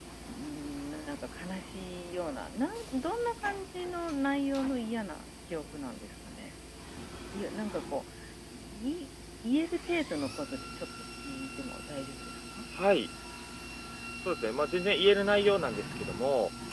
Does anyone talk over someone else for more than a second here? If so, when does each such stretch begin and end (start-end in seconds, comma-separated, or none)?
none